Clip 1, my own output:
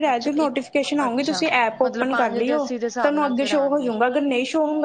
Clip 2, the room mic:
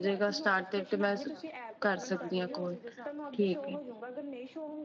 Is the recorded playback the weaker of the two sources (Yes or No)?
Yes